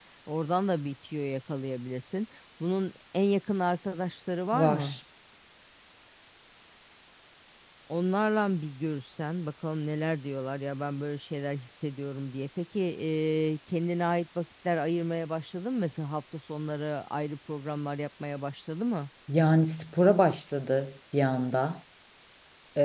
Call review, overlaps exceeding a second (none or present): none